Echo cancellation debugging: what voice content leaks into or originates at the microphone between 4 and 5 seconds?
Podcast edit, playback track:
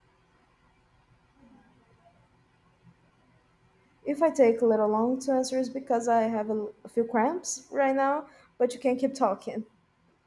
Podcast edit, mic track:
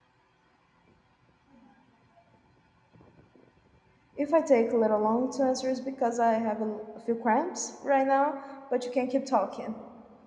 echo only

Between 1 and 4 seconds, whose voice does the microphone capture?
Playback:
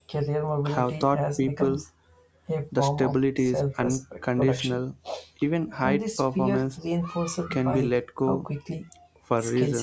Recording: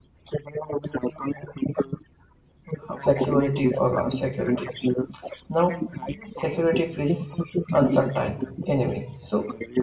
both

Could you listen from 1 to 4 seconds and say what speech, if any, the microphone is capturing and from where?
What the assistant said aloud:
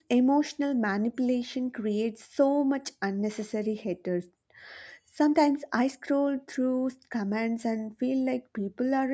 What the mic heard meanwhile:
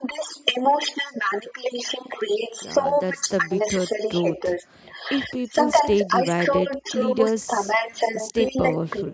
both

